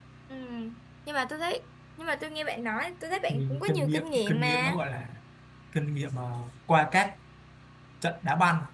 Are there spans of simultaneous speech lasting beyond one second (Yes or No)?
Yes